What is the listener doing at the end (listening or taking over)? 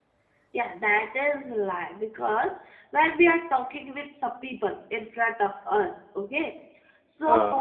listening